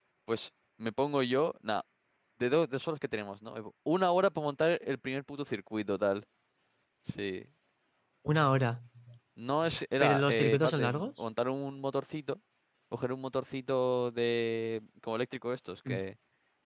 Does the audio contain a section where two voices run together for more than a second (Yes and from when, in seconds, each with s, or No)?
Yes, from 10.0 s